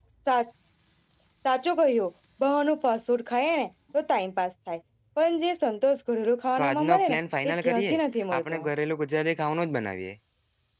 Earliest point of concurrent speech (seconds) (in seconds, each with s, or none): 6.6 s